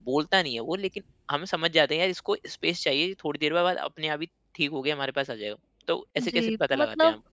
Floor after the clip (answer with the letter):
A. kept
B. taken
B